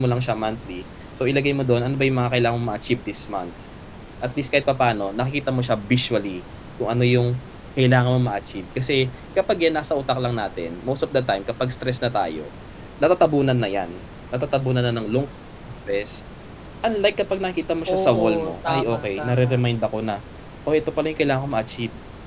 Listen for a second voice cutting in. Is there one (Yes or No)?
Yes